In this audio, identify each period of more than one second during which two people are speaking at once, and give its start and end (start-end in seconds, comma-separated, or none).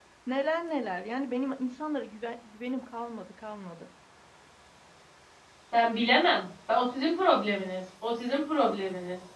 none